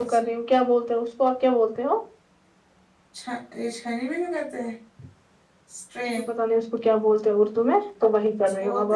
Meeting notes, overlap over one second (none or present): none